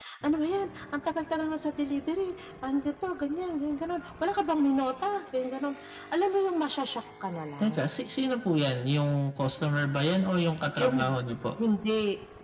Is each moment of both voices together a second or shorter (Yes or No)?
Yes